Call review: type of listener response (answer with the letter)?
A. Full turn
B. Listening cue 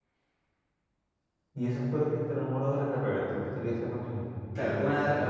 A